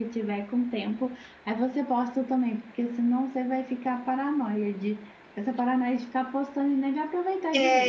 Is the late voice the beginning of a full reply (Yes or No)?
Yes